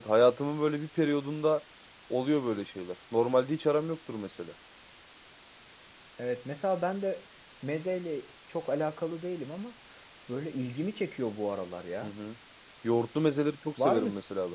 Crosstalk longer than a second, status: none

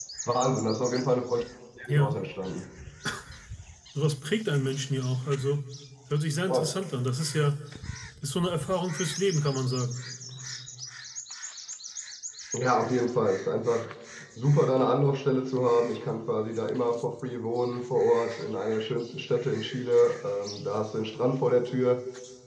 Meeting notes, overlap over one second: none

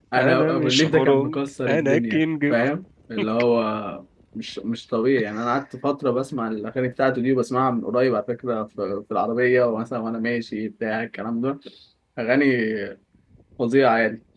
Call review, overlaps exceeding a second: present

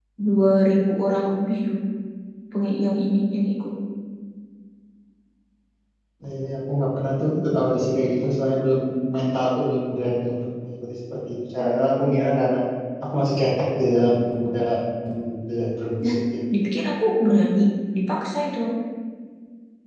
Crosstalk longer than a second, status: none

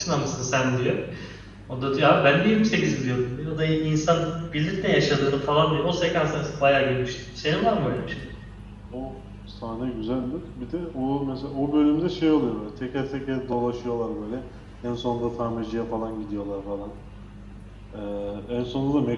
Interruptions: none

